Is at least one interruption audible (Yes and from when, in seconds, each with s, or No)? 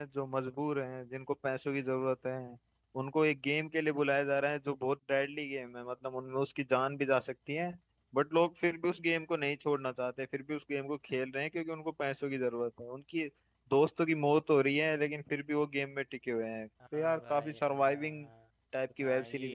Yes, from 16.9 s